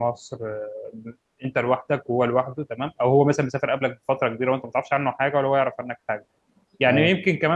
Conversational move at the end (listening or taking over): listening